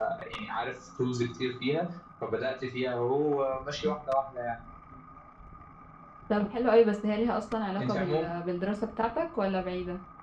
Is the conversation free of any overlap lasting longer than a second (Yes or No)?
Yes